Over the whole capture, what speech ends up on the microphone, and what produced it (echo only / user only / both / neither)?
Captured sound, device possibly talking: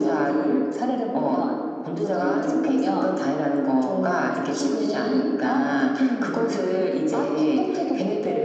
echo only